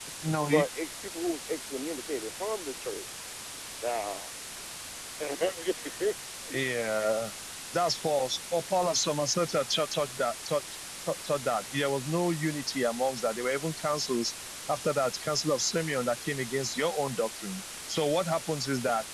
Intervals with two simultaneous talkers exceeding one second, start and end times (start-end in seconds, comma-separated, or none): none